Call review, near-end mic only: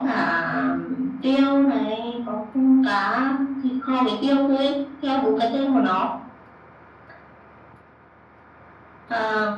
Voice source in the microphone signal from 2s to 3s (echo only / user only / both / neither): echo only